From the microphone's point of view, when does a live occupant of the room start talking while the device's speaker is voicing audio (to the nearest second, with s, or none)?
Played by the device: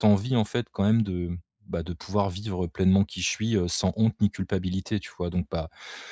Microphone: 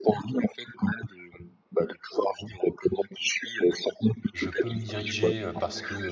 4 s